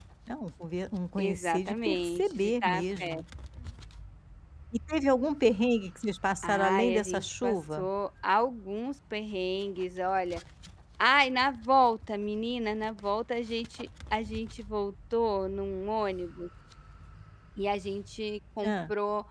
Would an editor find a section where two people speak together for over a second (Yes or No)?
Yes